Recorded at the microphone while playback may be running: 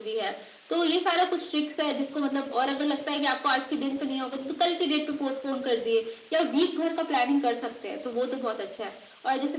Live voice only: none

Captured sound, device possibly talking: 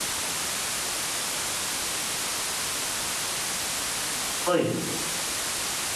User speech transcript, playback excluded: はい。

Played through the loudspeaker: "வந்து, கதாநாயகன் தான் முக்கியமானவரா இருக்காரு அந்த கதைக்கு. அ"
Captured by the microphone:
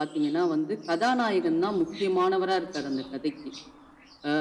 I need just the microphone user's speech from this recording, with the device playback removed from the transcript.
none

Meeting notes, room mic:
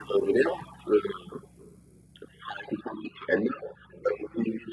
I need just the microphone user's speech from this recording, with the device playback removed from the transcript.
none

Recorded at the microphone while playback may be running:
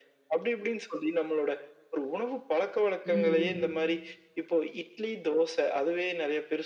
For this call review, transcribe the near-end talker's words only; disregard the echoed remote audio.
ம்.

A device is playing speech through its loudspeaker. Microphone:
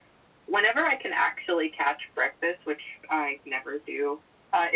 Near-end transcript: none

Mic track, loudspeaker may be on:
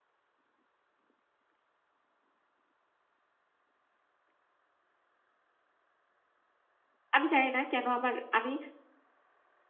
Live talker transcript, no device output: আমি জানি না কেন আমার আমি

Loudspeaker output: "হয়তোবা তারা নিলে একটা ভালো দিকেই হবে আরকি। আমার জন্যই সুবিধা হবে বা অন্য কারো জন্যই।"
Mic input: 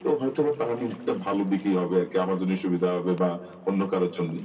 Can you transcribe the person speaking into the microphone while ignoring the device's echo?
none

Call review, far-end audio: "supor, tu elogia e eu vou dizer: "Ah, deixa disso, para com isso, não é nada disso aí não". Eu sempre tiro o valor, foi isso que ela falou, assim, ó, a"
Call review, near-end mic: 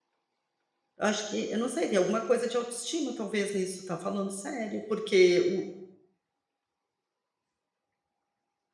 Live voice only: Eu acho que eu não sei, tem alguma coisa de autoestima talvez nisso, tá, falando sério, porque o

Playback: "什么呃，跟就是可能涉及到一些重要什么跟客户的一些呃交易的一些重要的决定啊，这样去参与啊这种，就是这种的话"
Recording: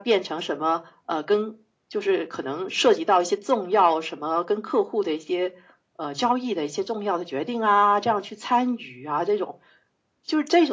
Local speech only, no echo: none

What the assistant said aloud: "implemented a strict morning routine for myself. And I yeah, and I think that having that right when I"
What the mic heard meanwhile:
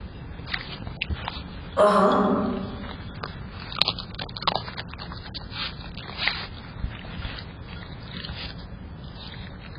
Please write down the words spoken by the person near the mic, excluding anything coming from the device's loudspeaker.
Uh huh.

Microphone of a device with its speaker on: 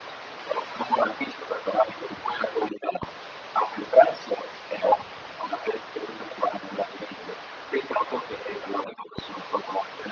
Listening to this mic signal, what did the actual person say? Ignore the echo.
none

